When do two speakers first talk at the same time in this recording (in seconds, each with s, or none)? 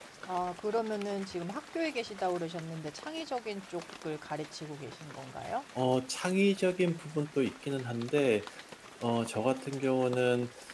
none